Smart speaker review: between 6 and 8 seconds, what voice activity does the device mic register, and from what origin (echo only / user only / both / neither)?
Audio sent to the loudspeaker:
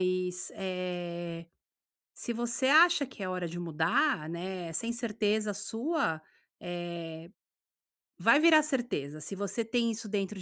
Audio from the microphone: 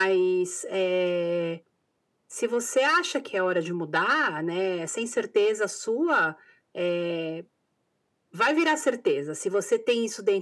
echo only